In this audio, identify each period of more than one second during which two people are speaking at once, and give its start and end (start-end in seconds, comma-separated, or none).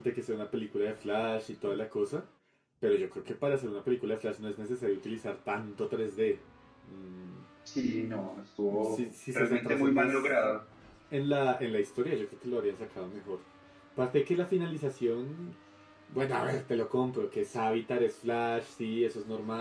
8.8-10.2